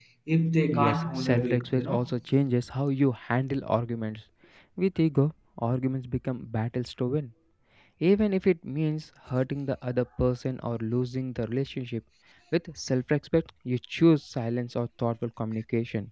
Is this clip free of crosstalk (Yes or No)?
No